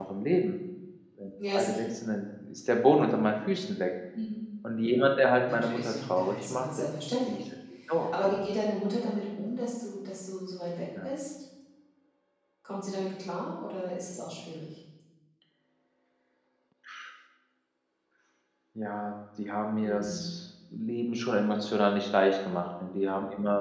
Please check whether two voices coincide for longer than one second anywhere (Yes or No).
Yes